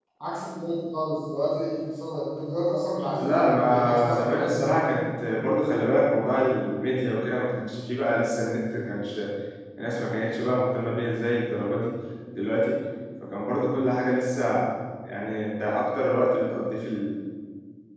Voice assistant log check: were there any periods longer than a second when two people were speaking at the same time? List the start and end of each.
3.1-4.9

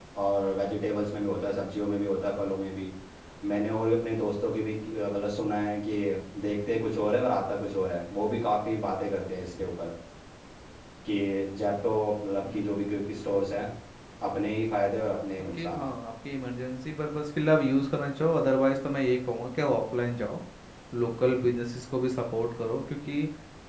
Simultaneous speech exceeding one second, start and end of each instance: none

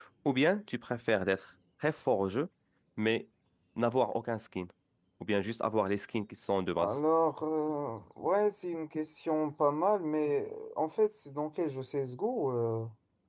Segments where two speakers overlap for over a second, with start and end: none

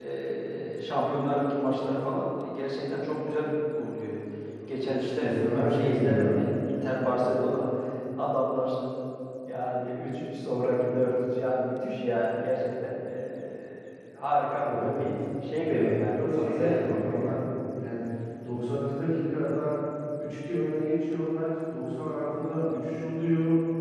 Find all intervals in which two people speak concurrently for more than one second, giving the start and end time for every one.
4.8-6.5, 15.7-17.4

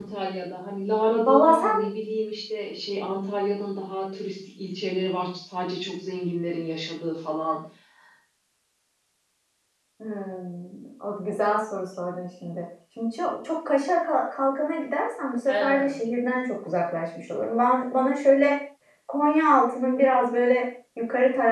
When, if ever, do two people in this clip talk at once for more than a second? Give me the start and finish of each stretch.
none

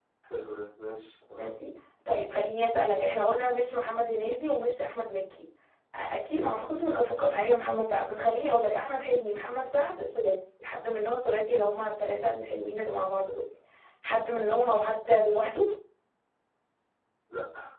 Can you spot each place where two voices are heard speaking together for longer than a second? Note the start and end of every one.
none

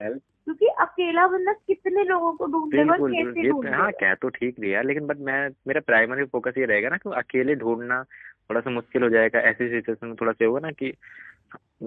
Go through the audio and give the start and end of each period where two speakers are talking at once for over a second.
2.7-4.0

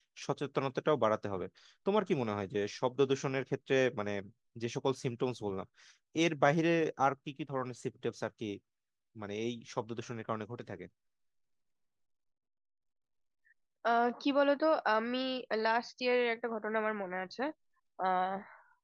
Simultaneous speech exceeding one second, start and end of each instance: none

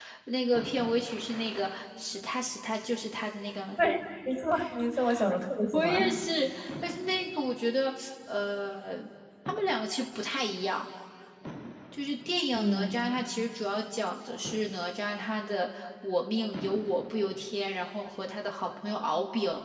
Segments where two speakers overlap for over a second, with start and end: none

